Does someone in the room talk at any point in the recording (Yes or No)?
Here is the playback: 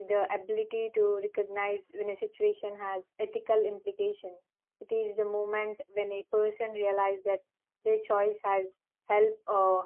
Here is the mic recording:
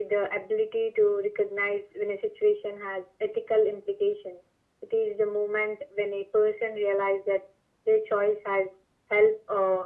No